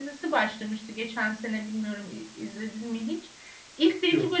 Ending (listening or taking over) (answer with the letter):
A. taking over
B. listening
B